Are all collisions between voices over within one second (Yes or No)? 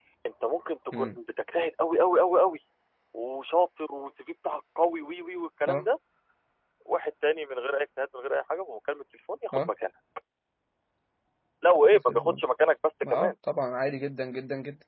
Yes